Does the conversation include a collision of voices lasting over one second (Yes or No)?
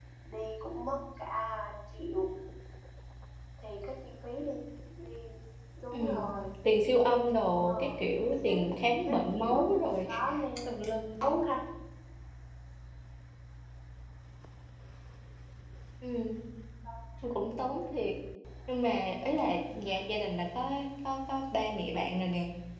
Yes